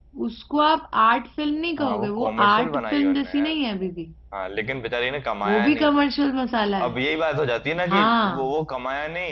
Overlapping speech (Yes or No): Yes